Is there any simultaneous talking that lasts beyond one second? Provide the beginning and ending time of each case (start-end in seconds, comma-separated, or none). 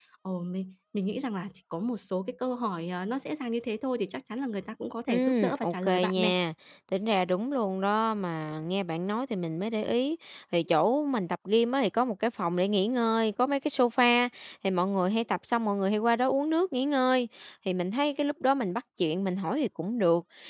5.1-6.3